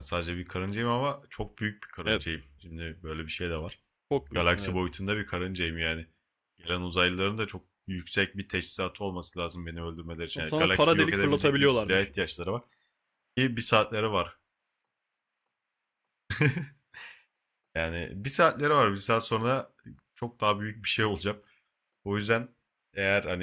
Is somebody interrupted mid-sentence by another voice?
Yes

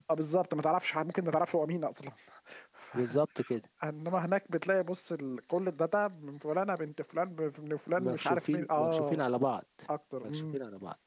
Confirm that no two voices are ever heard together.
No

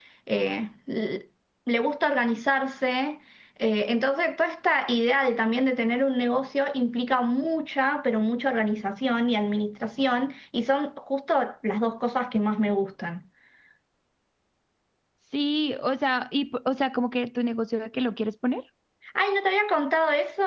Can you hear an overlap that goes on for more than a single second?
No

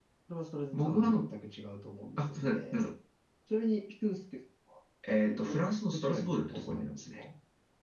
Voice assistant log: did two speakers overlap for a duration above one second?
Yes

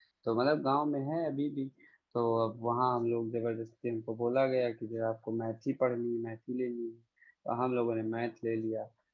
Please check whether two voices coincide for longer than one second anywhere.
No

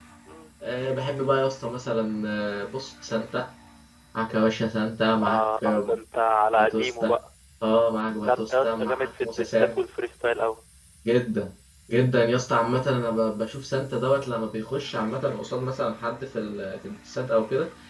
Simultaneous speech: Yes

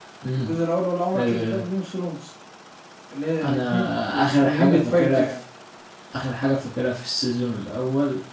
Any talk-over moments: Yes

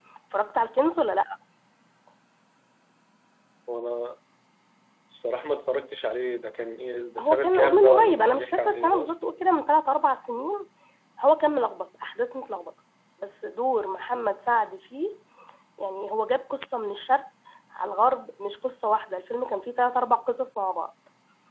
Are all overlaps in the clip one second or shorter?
No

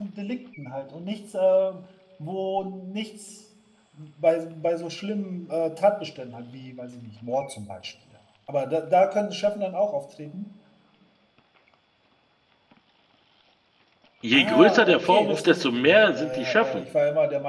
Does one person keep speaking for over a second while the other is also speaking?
Yes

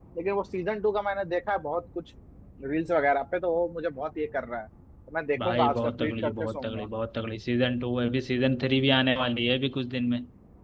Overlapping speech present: Yes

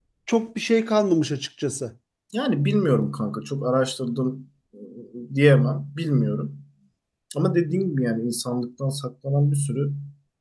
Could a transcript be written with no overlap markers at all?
Yes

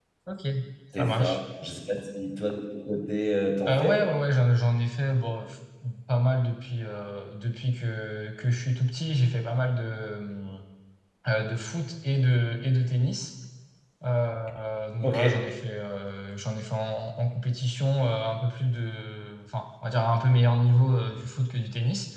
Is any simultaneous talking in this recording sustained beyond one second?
No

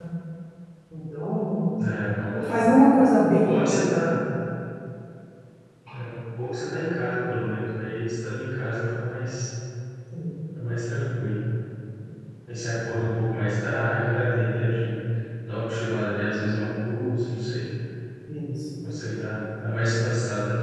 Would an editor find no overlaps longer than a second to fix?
Yes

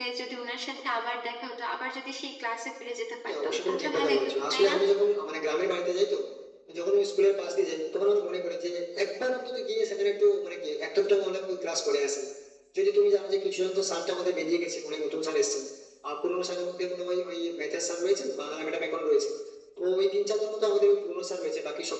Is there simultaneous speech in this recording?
Yes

